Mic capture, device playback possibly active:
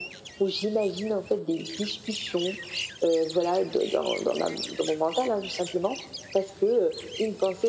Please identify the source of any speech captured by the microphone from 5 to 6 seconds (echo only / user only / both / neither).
echo only